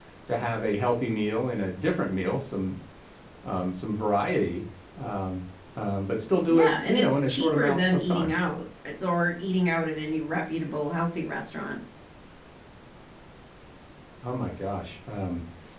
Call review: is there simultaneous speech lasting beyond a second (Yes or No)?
Yes